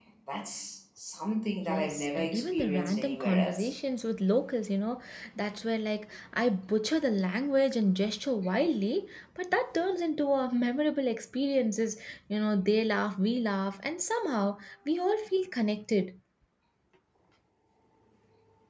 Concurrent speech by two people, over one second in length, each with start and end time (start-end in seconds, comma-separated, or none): 1.6-3.7